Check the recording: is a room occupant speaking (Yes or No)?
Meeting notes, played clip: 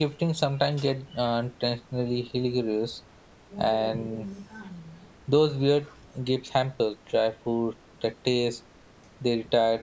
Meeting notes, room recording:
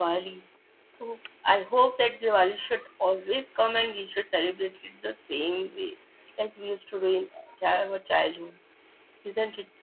Yes